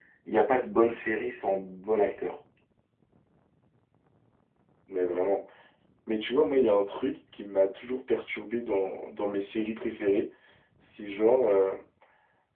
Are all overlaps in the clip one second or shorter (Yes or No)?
Yes